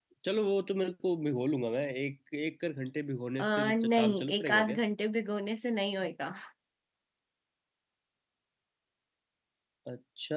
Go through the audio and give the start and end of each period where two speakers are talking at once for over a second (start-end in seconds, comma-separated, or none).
3.4-4.8